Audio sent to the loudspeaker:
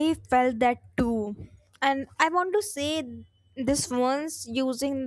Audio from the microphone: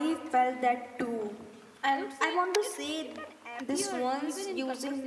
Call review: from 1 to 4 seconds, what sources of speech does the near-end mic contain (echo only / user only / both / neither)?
both